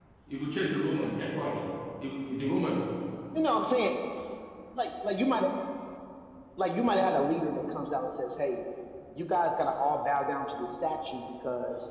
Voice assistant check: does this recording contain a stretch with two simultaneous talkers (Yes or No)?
No